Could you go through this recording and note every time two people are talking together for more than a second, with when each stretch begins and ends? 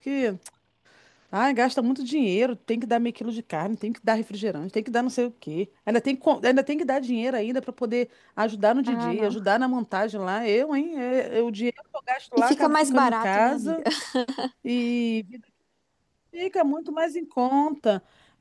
12.4-13.8

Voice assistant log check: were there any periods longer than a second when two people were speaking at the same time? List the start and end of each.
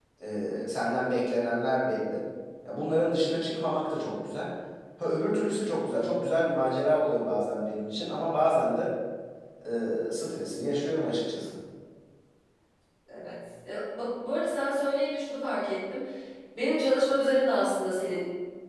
none

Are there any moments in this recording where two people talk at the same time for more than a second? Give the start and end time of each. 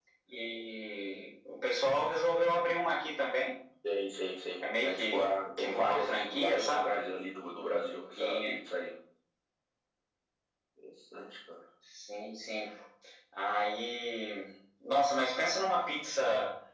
4.8-7.0

